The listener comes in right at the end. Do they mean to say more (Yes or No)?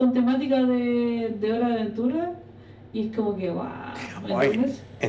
Yes